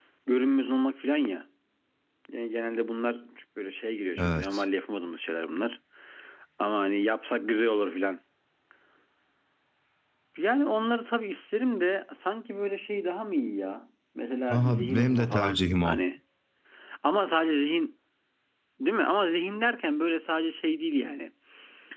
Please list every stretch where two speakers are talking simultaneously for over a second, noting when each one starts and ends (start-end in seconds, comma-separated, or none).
14.5-16.0